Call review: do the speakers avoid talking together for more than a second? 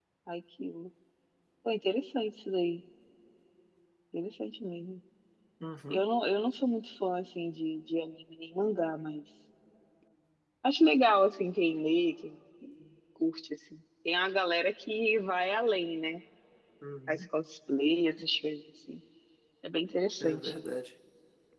Yes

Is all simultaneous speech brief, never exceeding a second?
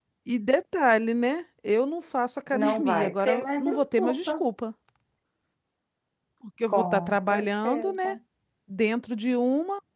No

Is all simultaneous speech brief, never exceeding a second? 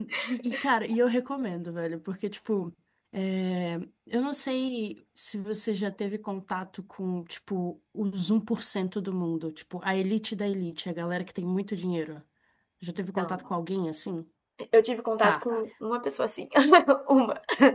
Yes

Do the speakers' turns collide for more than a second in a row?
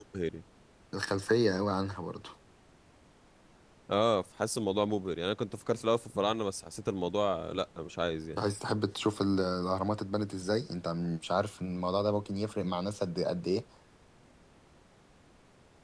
No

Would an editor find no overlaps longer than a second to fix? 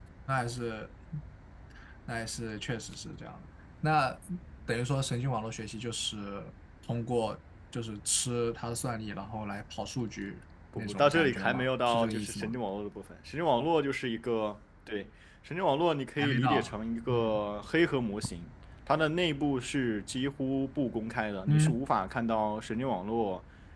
No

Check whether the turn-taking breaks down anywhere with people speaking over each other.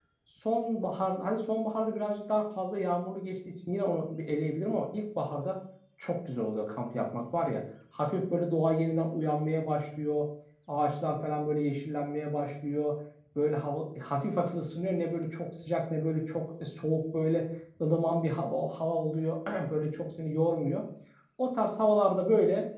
No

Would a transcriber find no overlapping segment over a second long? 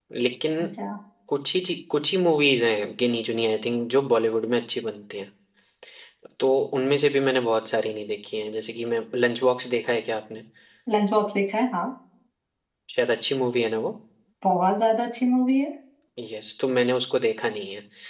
Yes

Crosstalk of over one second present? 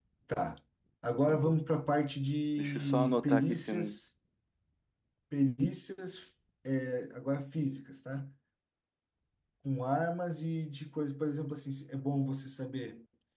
Yes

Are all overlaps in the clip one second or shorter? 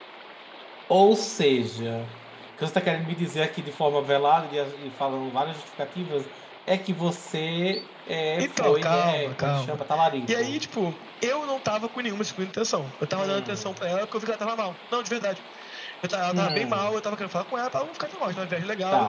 No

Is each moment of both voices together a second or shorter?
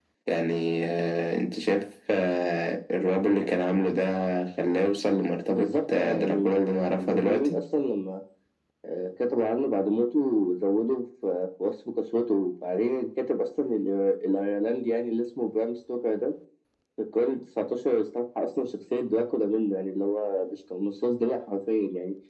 No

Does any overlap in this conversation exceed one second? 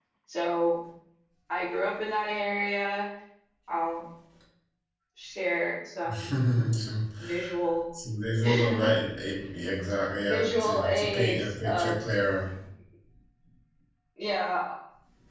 Yes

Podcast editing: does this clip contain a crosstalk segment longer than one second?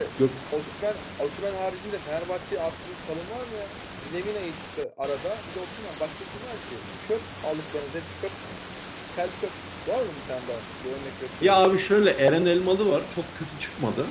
No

